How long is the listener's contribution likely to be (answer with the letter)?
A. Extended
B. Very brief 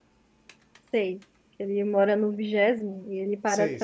A